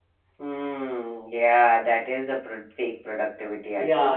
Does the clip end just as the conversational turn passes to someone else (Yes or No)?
Yes